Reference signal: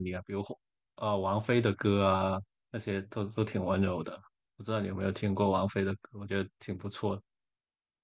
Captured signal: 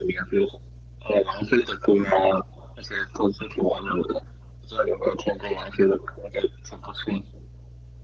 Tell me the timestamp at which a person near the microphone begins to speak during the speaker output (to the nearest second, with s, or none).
none